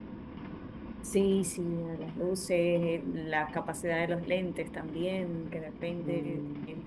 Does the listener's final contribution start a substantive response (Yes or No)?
No